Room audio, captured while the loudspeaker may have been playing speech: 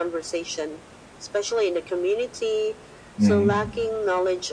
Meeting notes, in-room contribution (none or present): present